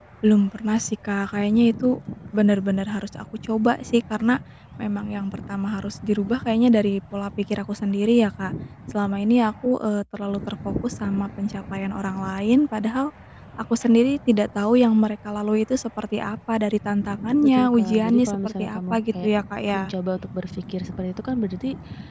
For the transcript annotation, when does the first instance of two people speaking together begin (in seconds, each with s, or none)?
17.4 s